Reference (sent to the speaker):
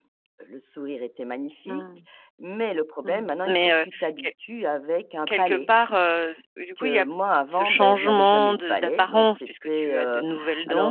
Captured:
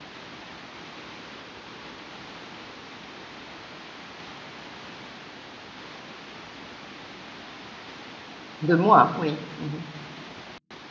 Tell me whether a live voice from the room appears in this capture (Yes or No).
Yes